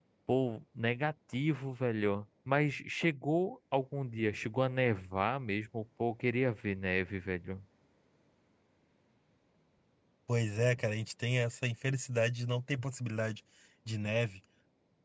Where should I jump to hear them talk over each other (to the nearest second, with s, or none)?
none